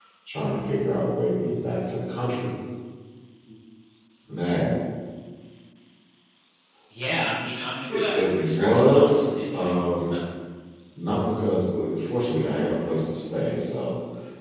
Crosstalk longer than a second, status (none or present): present